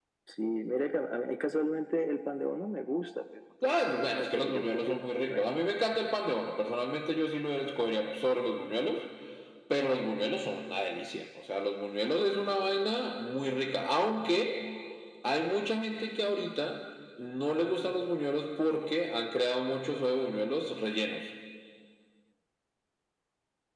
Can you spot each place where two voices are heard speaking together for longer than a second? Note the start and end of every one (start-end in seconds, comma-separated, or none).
3.6-5.5